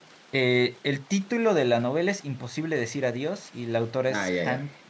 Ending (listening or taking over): taking over